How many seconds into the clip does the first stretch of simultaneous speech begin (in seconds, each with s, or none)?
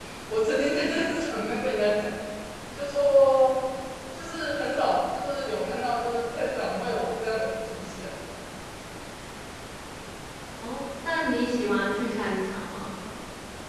none